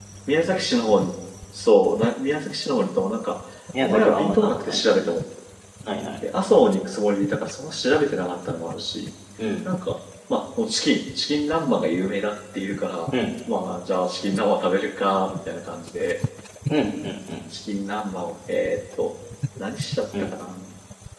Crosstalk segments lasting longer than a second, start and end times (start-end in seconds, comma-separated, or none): 3.8-5.0